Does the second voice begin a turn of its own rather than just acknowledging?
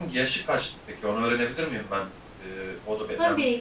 Yes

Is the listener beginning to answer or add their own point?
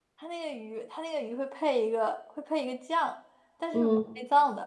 No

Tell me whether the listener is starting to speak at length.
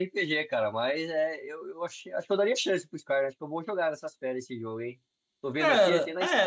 Yes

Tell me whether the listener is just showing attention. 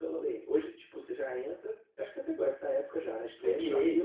Yes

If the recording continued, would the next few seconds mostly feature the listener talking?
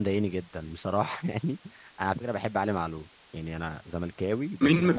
Yes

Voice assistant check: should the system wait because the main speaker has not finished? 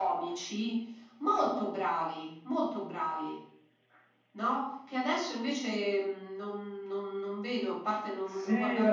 No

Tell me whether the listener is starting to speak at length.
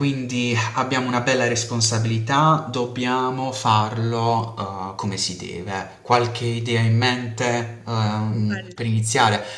No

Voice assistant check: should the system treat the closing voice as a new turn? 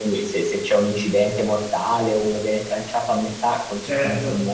No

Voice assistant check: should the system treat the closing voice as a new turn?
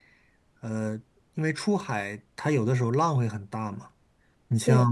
No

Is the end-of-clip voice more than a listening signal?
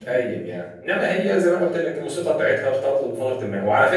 No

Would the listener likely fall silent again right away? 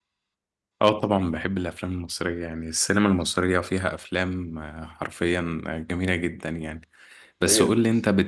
Yes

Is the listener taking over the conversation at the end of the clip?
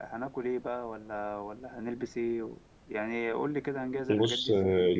Yes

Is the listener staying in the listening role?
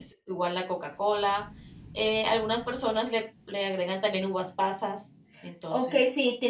No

